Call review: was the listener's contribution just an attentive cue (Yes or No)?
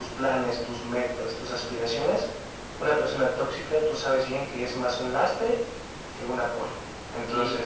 No